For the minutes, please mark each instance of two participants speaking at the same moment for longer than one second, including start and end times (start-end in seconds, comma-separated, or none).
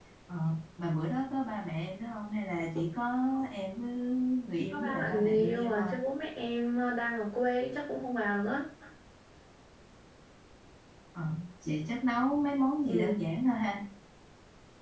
4.7-5.9